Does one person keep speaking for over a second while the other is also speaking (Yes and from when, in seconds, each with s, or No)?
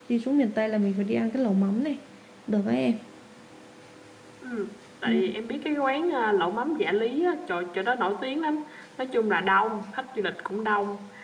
No